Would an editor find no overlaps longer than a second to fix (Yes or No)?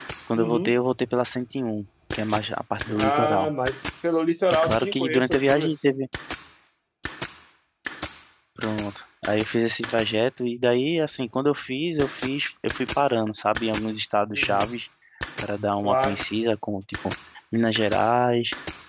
No